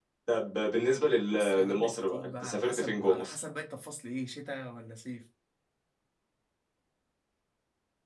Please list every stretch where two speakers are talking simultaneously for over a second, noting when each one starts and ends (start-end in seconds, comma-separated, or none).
1.3-3.4